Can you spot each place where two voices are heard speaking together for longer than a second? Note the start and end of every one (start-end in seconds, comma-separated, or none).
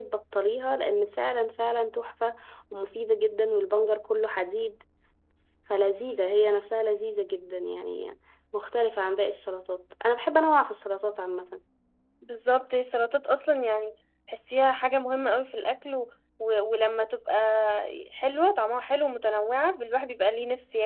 none